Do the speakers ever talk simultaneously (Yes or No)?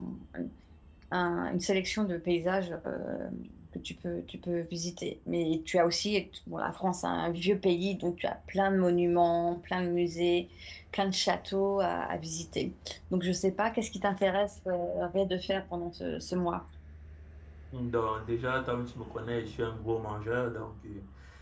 No